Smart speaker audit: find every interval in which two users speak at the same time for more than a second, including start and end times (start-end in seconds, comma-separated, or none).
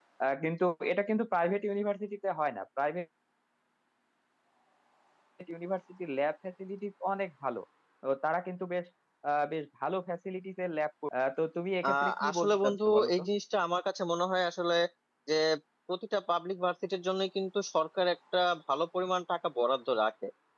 11.9-13.2